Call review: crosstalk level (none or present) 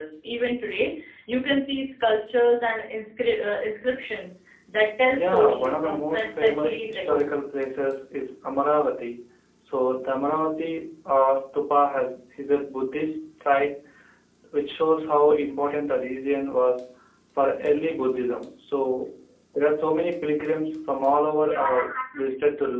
present